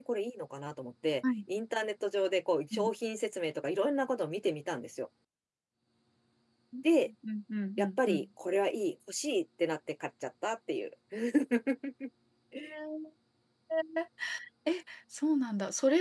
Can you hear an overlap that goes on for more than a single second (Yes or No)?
No